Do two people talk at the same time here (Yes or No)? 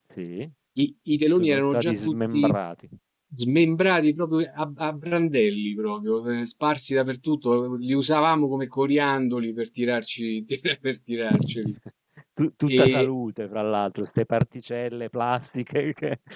Yes